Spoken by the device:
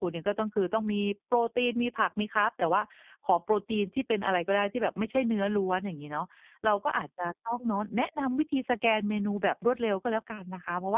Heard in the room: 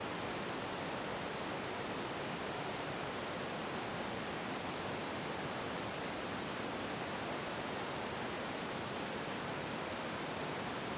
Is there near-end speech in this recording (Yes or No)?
No